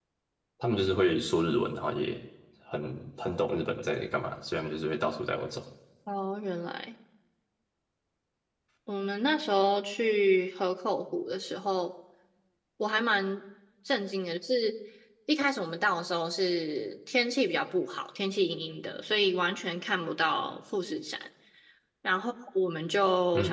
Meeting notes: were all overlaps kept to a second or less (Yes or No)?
Yes